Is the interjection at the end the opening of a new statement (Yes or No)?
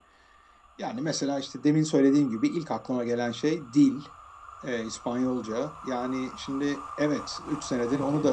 No